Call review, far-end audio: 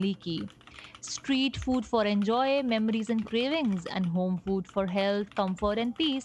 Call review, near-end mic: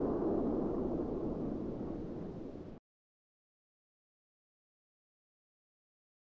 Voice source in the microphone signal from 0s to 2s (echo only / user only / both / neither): neither